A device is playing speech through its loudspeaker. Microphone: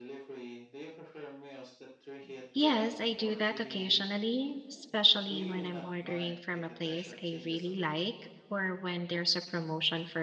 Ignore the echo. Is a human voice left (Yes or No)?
Yes